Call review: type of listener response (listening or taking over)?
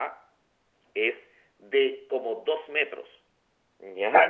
taking over